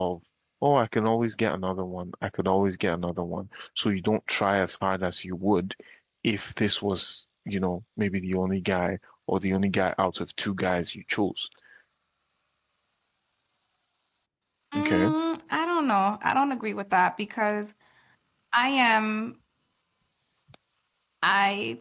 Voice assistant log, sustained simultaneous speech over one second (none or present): none